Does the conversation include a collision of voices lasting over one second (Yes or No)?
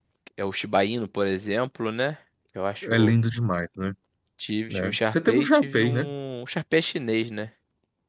Yes